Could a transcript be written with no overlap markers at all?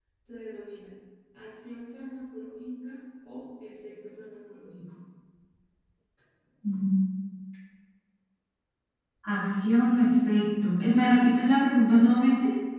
Yes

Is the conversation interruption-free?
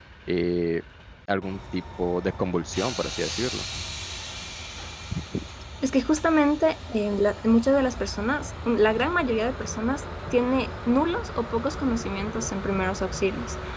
Yes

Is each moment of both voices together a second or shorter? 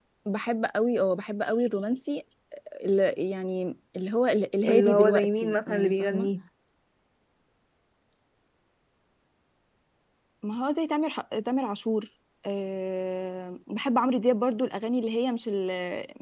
No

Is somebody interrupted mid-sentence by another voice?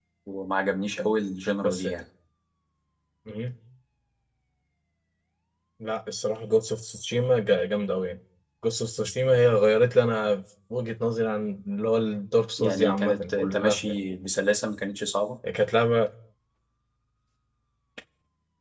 Yes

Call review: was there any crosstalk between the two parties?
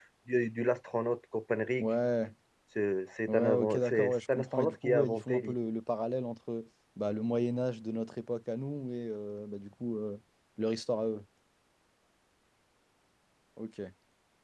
Yes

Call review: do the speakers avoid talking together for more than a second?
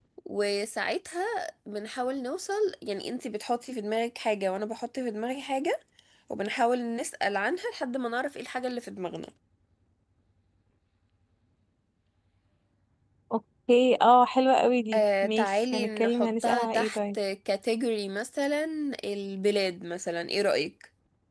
No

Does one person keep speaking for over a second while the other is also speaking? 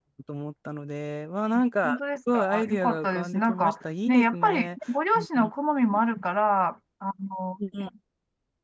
Yes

